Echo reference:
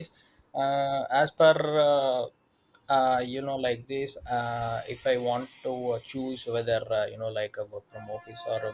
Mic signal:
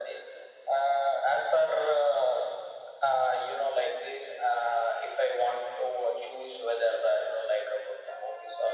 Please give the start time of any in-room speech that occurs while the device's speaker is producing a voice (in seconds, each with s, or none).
none